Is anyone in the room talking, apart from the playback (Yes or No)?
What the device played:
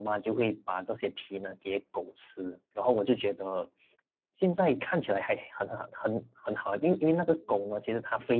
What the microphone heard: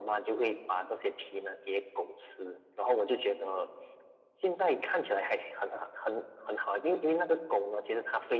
No